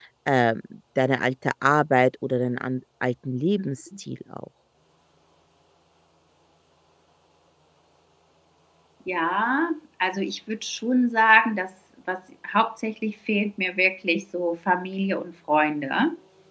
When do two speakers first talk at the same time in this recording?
none

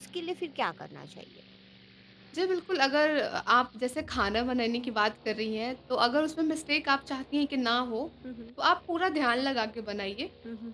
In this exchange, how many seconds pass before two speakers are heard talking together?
none

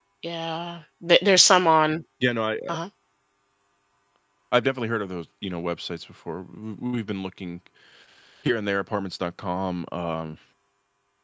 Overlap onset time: none

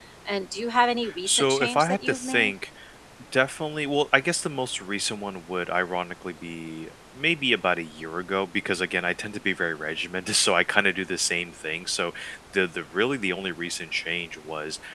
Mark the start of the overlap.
1.2 s

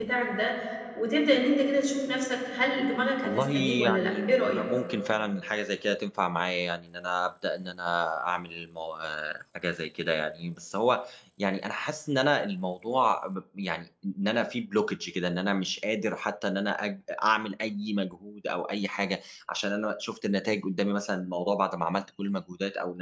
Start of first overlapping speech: 3.2 s

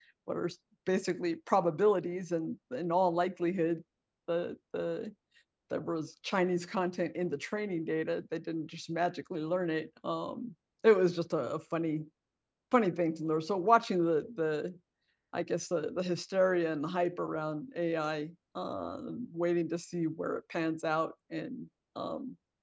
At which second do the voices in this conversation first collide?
none

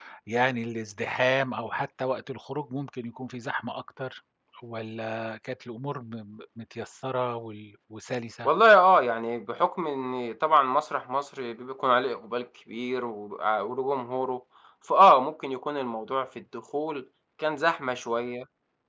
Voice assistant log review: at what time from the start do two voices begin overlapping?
none

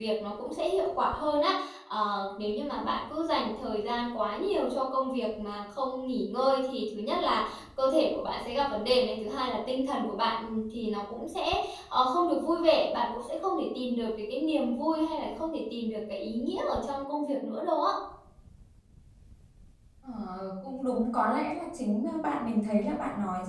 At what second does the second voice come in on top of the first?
none

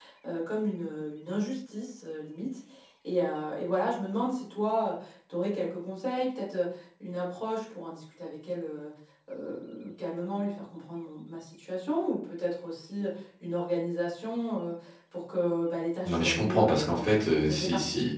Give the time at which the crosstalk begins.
16.1 s

